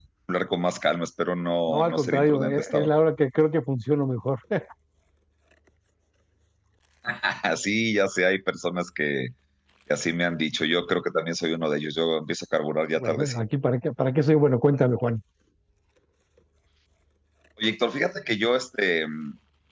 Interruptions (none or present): present